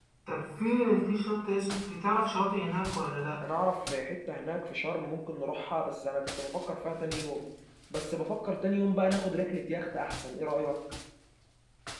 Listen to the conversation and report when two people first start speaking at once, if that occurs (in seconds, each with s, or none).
none